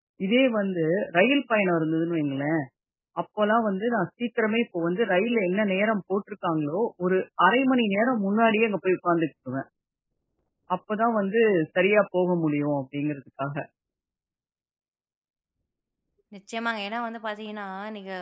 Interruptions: none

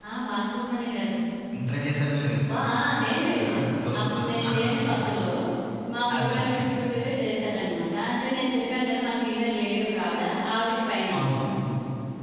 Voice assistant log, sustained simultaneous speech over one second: present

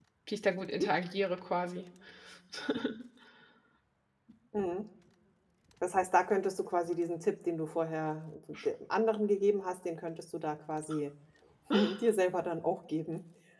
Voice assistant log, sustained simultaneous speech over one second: none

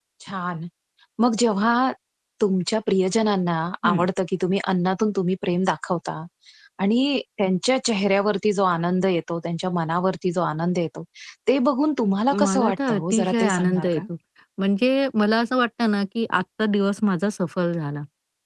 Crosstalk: present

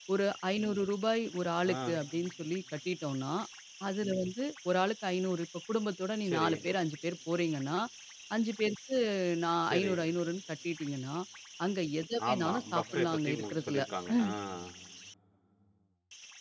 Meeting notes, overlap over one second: present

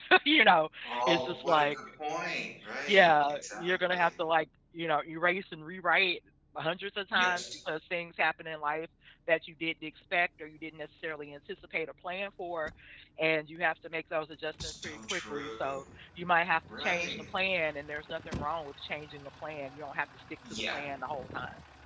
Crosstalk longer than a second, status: present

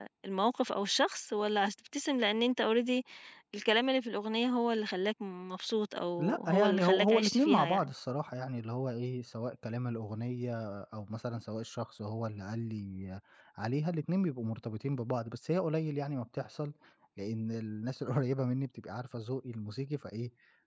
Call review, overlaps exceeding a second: present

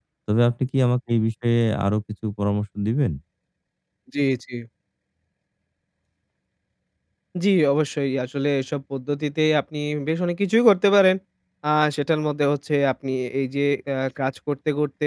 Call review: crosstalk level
none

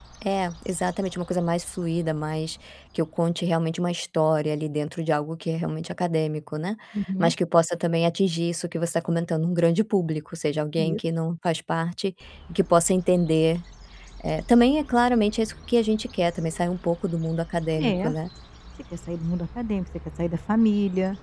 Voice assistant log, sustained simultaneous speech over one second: none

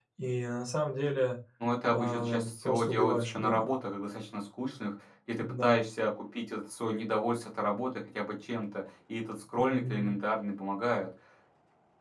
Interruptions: present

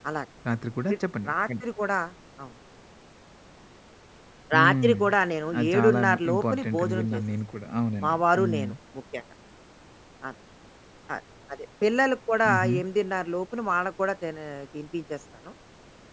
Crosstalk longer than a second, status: present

